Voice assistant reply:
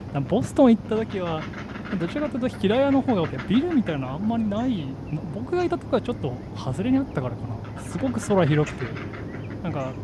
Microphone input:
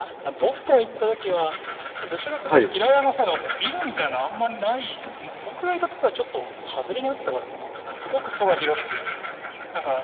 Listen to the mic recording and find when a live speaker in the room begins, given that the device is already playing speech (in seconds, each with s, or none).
2.4 s